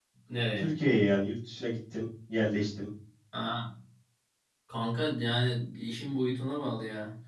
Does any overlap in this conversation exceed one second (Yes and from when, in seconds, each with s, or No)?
No